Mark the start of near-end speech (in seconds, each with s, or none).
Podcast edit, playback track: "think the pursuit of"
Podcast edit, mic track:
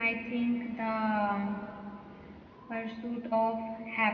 none